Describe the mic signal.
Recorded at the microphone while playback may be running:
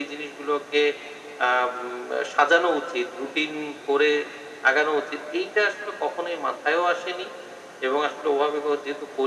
echo only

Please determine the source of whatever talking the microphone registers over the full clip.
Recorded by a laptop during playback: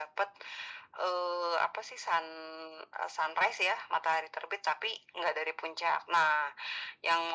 echo only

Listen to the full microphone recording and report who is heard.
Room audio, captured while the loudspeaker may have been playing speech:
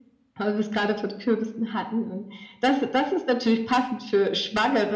echo only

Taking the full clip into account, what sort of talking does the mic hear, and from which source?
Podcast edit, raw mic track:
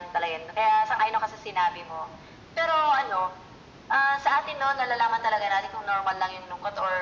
echo only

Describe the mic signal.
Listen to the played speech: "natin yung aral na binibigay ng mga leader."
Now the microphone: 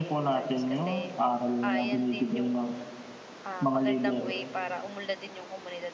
both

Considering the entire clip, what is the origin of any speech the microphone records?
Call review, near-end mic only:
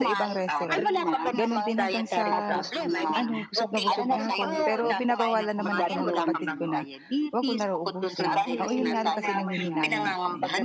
both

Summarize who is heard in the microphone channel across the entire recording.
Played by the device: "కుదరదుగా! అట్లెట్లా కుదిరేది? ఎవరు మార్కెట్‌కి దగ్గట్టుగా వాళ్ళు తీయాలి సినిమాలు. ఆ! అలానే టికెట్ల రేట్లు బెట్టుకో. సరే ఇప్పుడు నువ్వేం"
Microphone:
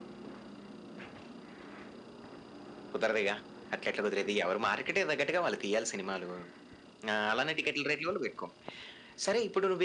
echo only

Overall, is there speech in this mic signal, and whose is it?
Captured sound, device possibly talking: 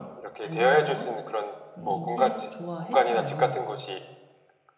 both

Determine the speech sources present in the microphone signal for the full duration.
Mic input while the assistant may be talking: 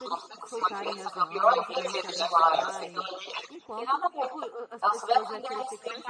both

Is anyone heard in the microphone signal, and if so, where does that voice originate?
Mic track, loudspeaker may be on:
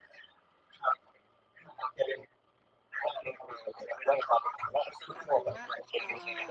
both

